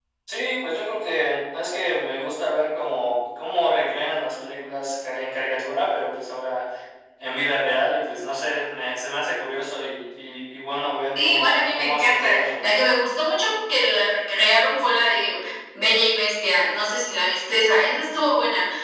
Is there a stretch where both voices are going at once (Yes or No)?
Yes